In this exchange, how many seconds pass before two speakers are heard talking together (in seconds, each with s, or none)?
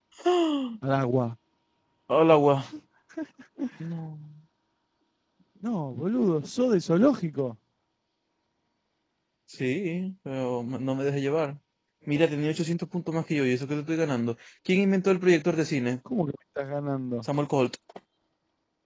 none